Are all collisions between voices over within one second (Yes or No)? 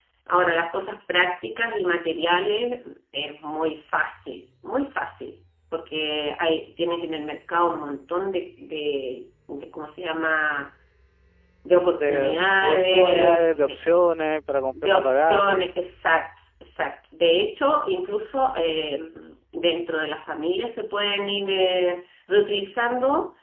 No